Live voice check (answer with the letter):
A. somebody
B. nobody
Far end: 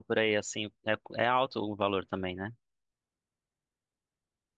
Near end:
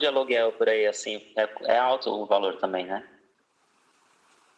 B